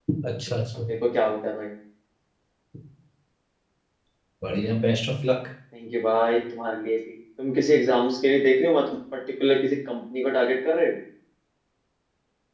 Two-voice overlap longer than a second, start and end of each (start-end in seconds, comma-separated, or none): none